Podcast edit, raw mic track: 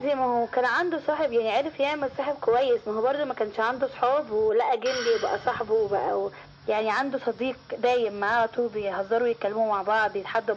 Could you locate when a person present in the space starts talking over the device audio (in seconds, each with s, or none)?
none